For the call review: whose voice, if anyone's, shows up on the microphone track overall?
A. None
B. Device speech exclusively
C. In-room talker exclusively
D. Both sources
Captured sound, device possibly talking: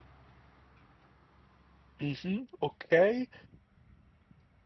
C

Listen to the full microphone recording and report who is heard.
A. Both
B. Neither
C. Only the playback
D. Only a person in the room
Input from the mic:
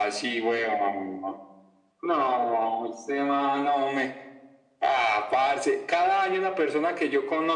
C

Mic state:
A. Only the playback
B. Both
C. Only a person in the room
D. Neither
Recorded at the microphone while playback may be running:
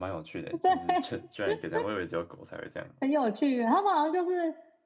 B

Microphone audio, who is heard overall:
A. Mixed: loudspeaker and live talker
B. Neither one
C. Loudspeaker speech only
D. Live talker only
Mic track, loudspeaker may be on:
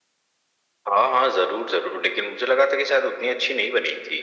C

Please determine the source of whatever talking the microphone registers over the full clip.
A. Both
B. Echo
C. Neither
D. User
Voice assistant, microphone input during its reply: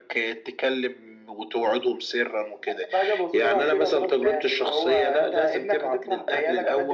B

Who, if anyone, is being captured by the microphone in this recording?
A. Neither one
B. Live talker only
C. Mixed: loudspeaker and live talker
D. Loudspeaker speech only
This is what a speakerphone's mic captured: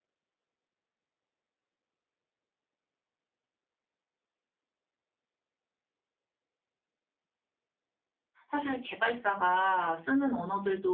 B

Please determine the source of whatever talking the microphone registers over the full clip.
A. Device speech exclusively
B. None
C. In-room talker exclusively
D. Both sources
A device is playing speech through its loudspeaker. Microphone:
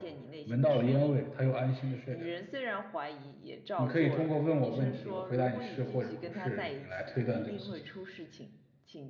D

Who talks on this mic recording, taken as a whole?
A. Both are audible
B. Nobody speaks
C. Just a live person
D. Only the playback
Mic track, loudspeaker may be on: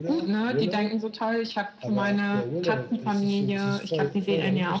A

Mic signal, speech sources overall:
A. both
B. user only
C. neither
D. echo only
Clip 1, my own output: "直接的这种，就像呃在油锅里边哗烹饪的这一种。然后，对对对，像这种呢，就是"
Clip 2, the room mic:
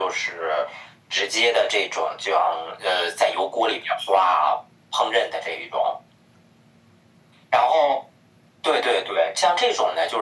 D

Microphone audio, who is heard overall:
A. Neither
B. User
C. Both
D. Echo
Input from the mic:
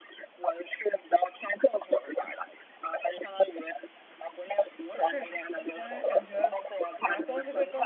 C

